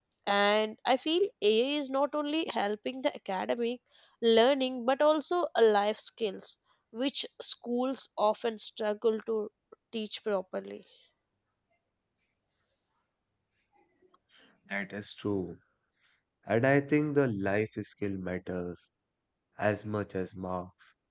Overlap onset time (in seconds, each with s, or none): none